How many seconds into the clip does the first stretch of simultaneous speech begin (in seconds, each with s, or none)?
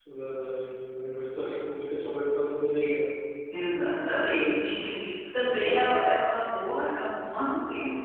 none